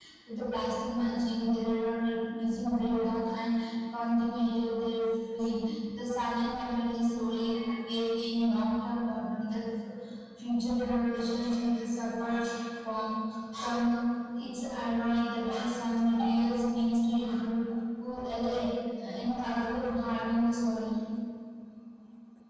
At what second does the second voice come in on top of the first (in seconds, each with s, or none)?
none